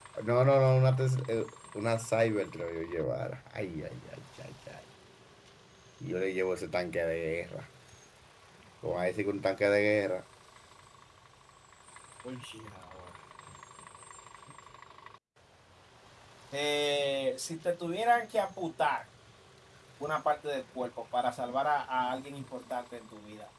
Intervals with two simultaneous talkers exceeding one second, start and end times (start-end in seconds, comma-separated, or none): none